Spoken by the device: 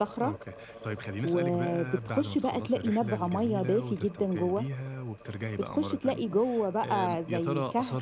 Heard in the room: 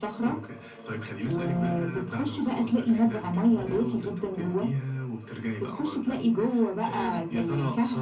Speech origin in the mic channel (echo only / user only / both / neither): echo only